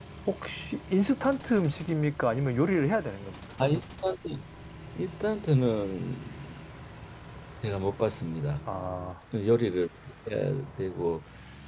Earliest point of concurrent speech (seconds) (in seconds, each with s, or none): none